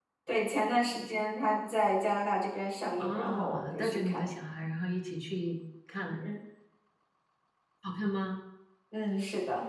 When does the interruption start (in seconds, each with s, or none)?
3.0 s